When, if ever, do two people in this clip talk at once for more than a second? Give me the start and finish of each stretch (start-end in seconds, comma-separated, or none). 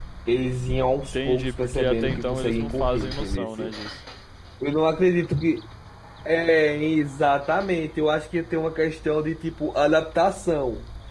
1.0-3.5